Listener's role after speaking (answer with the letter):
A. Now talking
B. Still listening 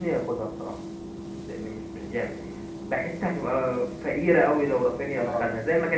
B